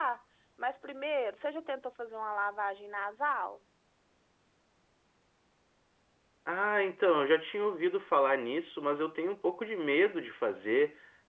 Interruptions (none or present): none